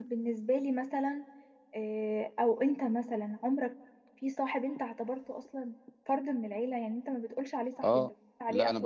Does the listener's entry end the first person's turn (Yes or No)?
Yes